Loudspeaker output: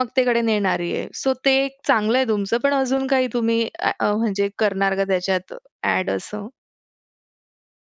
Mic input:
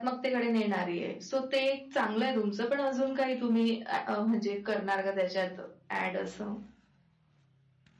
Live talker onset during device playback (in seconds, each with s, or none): none